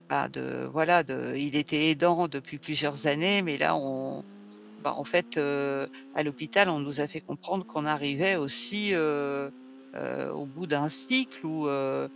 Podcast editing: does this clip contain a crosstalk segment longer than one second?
No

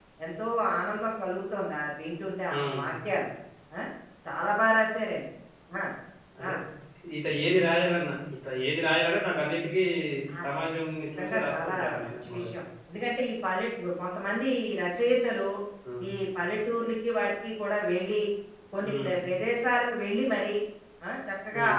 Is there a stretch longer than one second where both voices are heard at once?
Yes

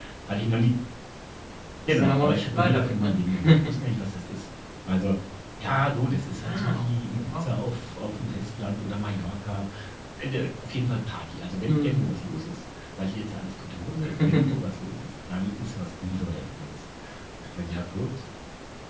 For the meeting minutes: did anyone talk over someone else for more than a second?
Yes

